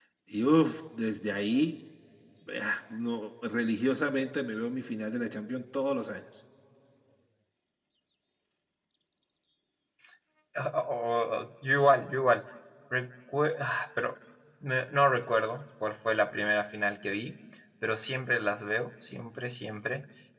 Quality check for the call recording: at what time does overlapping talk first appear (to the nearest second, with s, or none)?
none